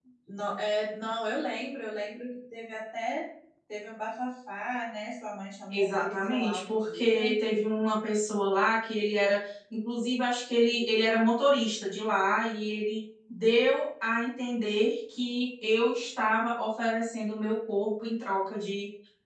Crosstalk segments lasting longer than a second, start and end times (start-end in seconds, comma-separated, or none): 5.7-7.3